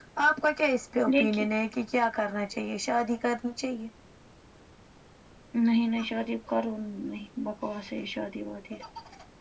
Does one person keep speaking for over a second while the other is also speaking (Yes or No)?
No